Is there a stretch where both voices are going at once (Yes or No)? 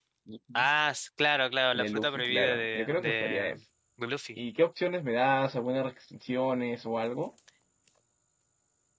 Yes